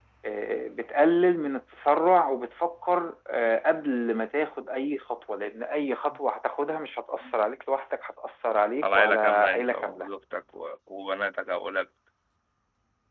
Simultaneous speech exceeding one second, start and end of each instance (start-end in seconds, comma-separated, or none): 8.8-10.1